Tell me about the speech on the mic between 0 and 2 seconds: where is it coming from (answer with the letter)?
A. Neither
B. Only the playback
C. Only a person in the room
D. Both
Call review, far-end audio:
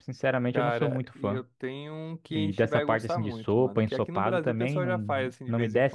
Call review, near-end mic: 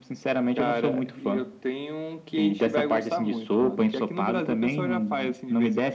B